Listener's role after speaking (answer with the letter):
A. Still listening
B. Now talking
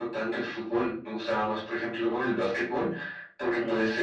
A